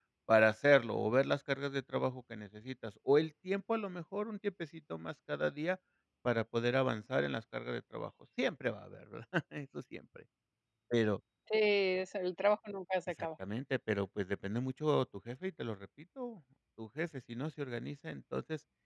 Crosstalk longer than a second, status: none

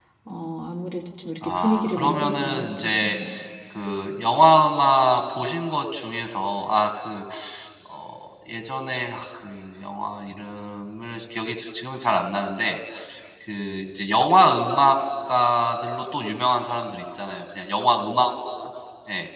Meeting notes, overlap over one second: present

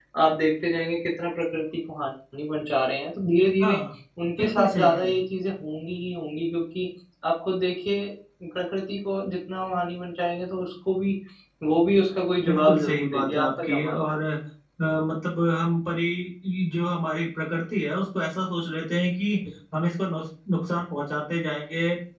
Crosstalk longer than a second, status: present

